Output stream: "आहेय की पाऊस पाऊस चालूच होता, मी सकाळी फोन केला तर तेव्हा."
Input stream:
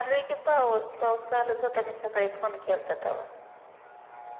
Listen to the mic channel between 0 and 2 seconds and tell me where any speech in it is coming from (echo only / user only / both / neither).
echo only